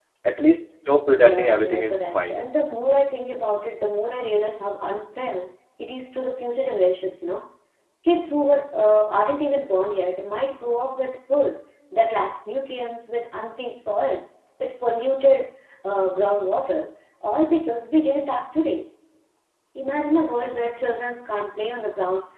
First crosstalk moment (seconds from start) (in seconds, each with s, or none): 1.2 s